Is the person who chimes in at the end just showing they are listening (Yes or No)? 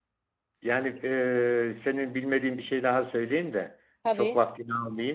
Yes